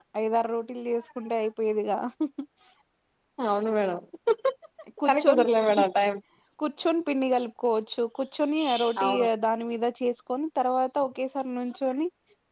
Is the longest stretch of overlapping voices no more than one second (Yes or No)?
Yes